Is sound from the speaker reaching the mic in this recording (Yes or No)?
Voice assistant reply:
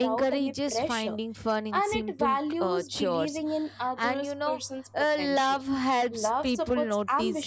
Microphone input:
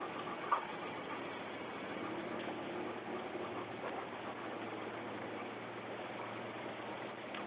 No